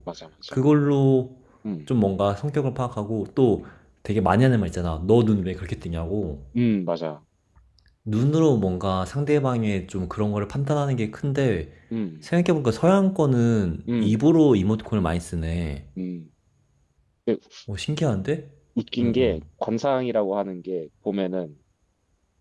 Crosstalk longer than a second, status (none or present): none